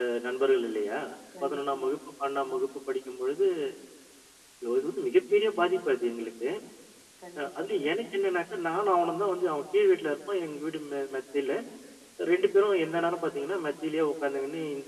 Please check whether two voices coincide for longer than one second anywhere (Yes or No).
No